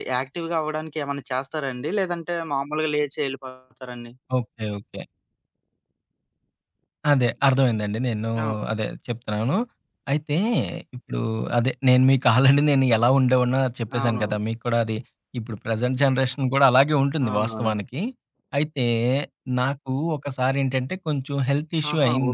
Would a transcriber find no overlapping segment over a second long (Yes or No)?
Yes